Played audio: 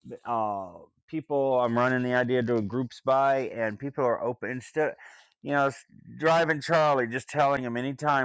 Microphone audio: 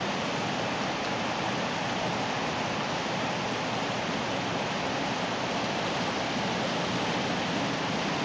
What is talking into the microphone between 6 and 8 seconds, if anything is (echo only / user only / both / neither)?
neither